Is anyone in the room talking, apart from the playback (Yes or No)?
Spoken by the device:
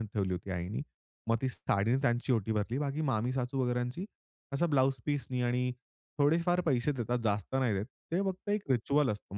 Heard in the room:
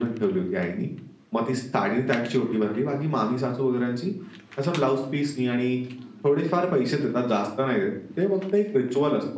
No